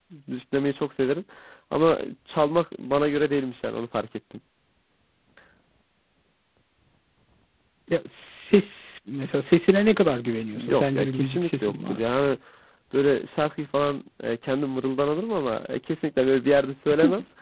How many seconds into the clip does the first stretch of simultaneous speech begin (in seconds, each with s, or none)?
10.5 s